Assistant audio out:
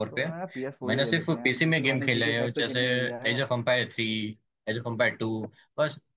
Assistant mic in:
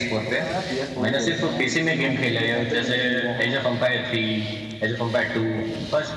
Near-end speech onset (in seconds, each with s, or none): none